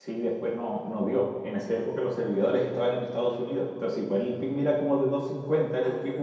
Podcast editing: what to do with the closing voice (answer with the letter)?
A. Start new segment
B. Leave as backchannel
A